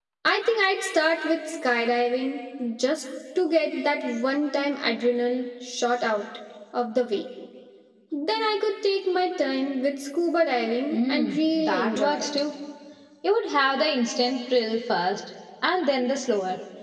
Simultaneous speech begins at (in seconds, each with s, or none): 10.9 s